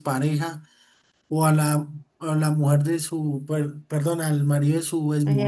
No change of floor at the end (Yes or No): Yes